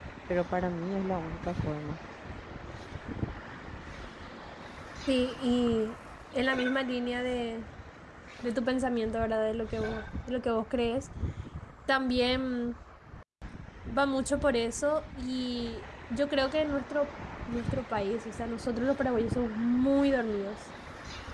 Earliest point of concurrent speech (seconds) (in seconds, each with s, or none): none